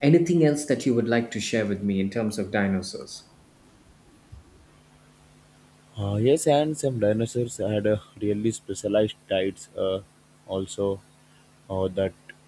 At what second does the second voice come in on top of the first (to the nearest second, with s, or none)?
none